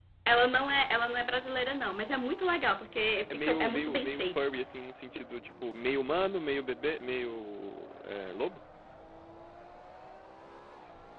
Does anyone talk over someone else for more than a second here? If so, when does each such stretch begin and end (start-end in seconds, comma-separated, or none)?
3.1-4.4